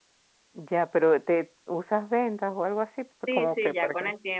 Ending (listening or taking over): taking over